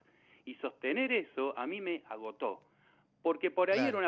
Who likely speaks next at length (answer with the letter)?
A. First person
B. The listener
A